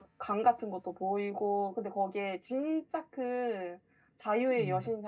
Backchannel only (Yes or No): Yes